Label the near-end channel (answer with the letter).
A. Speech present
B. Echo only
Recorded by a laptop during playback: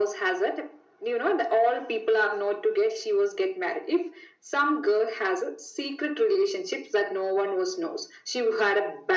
B